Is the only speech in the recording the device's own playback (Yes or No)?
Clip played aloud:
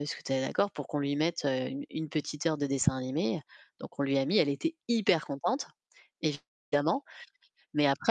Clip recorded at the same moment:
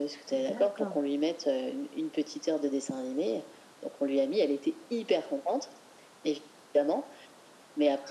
No